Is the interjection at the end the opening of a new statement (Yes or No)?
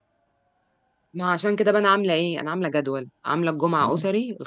No